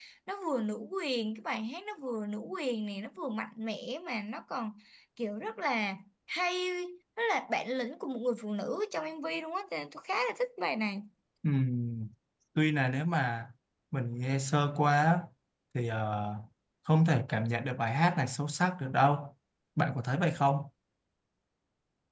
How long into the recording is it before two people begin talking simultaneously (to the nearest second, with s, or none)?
none